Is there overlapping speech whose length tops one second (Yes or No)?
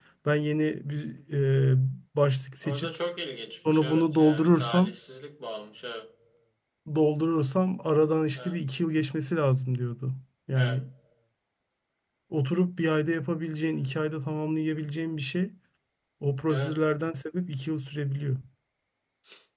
Yes